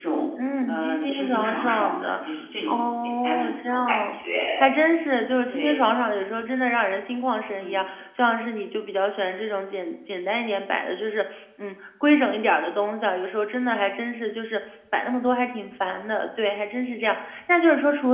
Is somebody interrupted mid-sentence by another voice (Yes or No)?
Yes